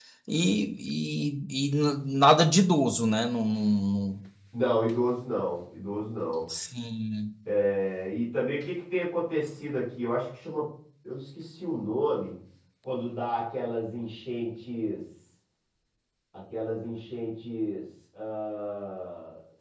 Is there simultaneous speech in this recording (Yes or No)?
No